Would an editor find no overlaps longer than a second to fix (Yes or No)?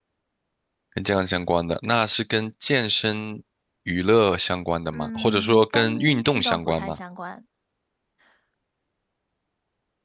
No